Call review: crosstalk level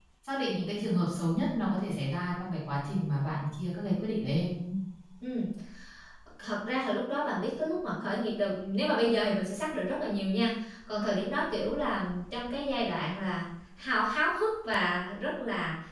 none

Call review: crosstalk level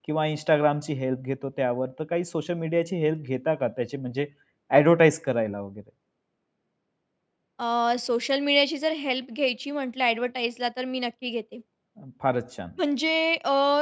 none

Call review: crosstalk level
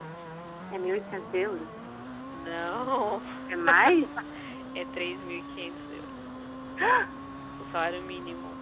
none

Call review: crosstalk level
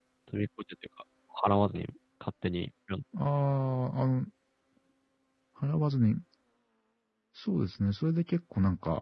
none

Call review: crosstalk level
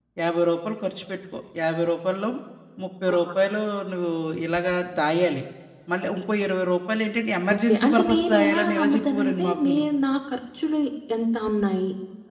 present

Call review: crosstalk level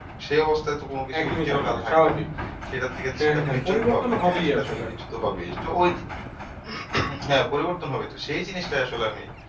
present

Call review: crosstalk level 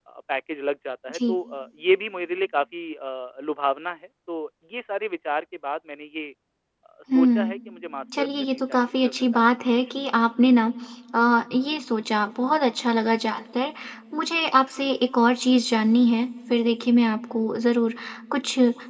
present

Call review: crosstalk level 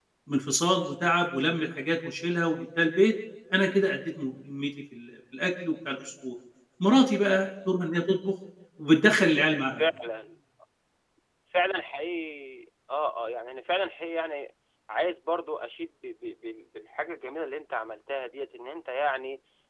none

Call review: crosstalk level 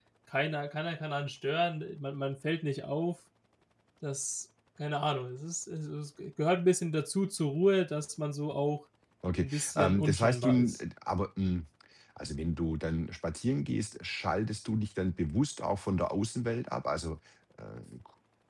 present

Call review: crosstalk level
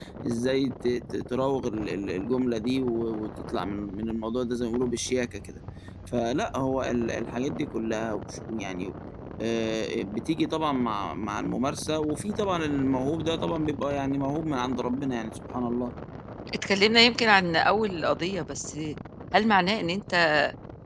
none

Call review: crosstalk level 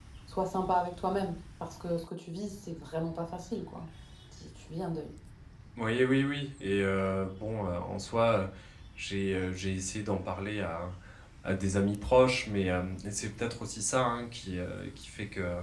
none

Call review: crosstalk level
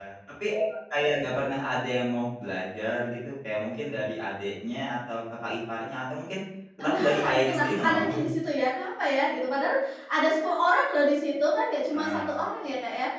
present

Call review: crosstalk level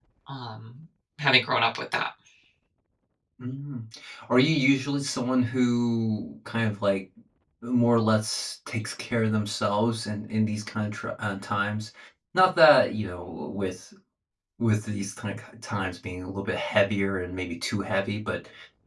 none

